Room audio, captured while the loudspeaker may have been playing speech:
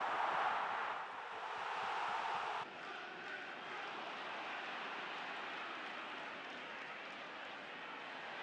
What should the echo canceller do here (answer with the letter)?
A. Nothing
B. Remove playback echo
A